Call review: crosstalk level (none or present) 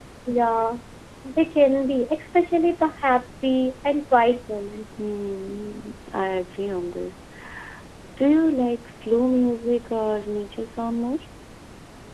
none